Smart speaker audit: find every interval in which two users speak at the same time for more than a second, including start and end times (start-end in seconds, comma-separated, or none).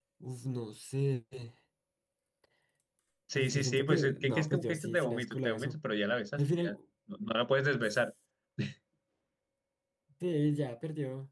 3.3-5.8